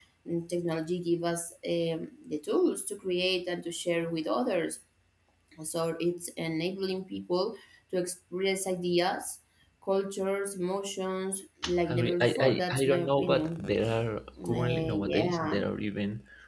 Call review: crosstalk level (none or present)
present